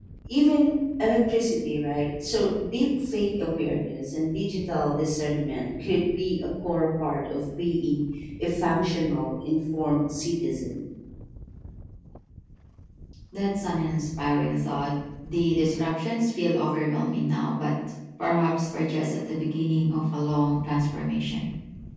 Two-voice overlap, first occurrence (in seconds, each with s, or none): none